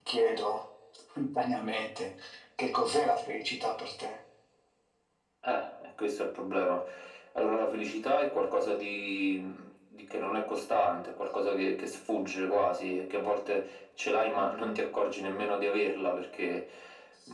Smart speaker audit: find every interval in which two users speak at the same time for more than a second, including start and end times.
none

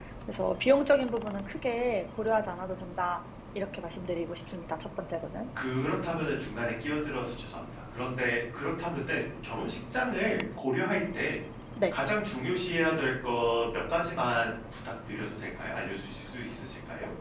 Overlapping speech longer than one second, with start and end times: none

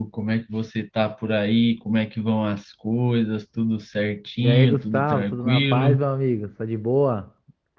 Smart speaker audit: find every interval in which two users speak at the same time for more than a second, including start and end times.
4.4-6.0

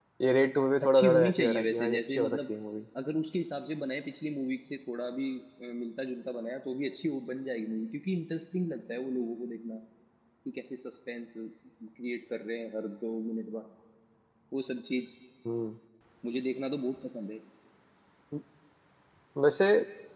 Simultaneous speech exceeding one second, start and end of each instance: 0.9-2.4

